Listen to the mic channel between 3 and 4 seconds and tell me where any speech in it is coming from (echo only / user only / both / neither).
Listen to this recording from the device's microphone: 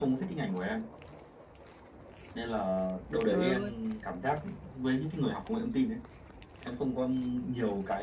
both